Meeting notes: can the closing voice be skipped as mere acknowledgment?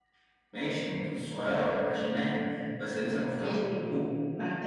No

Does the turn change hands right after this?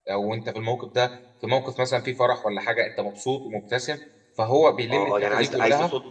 Yes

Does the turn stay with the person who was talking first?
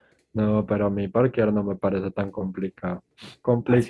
Yes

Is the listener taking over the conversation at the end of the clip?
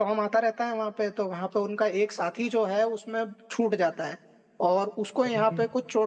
No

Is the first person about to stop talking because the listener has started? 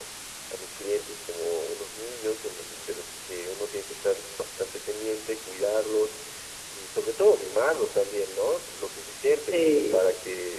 No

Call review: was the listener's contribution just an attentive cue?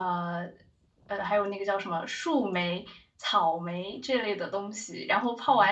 Yes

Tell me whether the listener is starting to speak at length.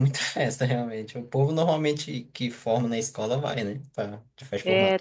Yes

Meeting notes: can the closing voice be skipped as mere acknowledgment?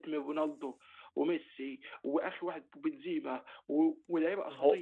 Yes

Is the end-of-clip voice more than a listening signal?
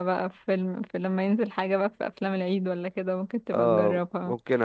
Yes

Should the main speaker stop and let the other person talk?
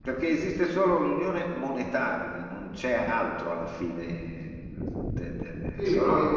Yes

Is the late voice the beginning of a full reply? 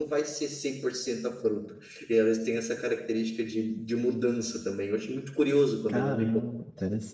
Yes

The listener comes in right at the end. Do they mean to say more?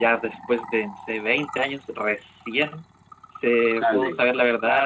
No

